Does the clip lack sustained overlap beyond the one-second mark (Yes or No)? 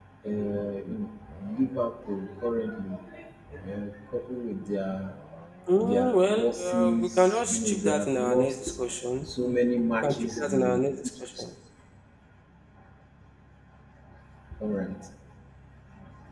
No